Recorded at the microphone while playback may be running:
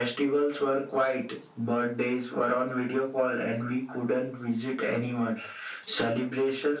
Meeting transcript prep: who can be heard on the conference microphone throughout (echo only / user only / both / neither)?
echo only